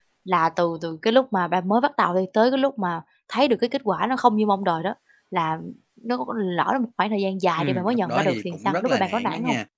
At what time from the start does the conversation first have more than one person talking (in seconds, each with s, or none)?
7.6 s